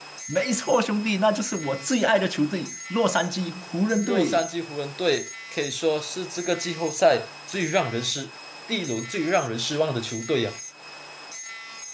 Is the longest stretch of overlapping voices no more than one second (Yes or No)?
Yes